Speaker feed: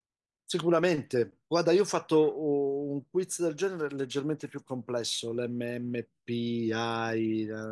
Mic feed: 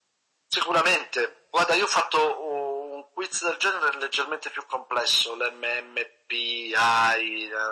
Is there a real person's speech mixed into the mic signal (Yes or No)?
No